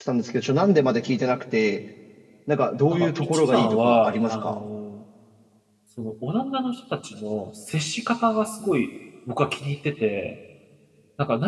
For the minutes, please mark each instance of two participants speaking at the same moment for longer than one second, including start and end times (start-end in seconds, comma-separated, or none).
2.9-4.6